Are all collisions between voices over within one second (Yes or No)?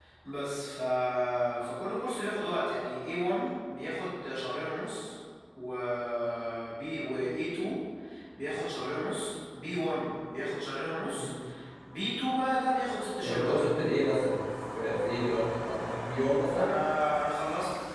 Yes